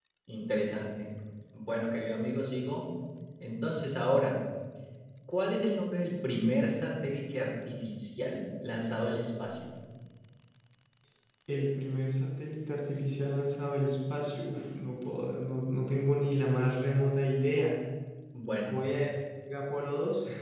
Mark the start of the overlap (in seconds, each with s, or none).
none